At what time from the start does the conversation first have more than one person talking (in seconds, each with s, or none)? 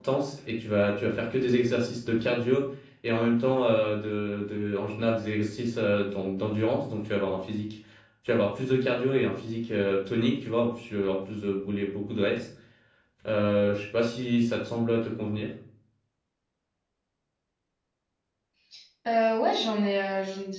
none